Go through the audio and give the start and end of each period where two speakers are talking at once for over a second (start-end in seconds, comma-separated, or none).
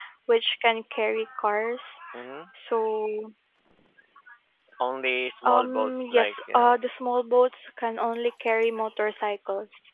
5.4-6.8